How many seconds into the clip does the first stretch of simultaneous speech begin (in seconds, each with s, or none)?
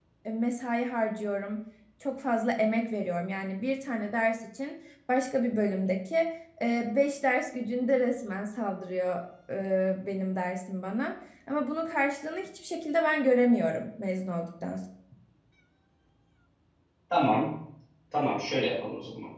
none